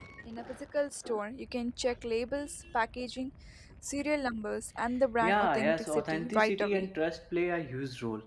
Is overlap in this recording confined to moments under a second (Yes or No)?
No